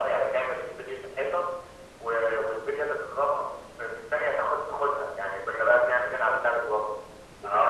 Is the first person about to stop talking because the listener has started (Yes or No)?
Yes